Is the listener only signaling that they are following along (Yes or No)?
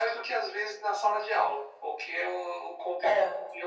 Yes